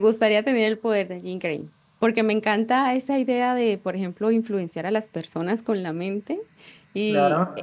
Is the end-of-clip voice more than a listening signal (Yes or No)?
No